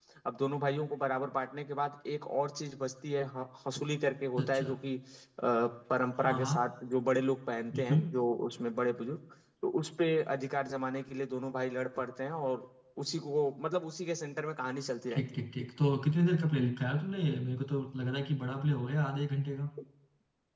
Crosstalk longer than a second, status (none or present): none